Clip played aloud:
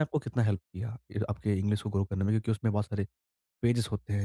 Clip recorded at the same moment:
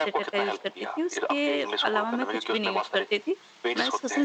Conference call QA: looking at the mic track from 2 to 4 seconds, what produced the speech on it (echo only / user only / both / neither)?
both